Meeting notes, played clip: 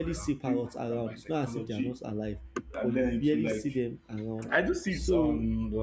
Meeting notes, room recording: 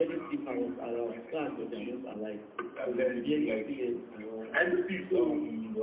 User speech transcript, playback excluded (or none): none